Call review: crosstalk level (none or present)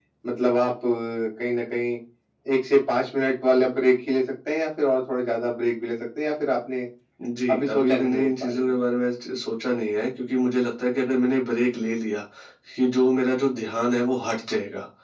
present